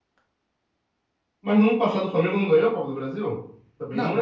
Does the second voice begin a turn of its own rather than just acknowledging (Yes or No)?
Yes